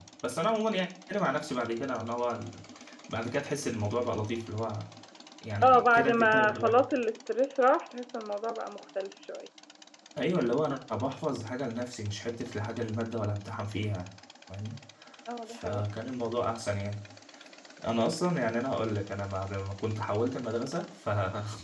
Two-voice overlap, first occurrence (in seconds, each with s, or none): 5.6 s